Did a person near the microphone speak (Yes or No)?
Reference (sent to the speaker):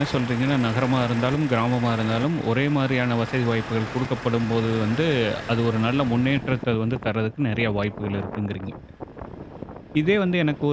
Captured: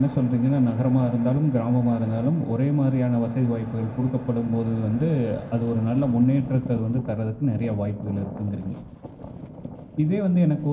No